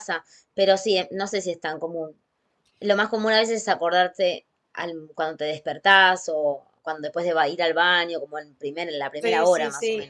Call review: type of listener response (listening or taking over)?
taking over